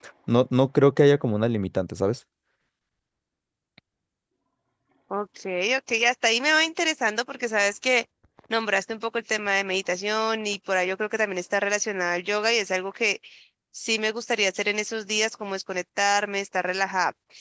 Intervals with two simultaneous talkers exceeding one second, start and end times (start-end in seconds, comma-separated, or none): none